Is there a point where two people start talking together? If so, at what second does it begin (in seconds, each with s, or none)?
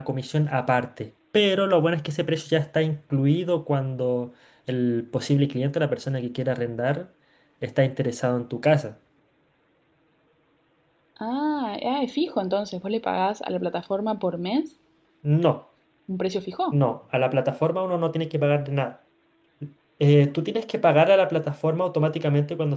none